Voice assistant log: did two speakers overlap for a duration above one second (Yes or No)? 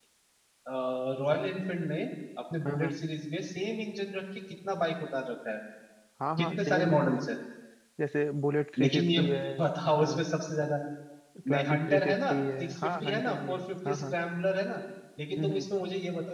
Yes